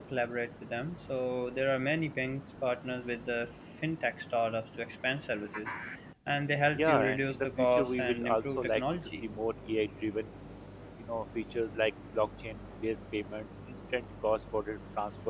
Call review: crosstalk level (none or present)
present